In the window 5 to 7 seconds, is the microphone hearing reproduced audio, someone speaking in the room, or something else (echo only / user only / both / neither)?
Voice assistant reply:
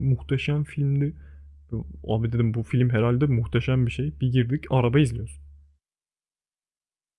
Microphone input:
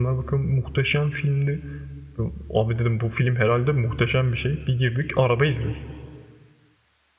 echo only